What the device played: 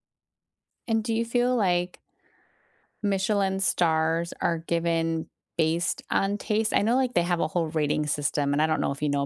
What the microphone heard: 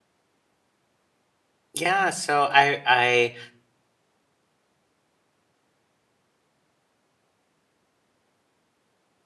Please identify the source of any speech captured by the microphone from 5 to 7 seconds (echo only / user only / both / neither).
neither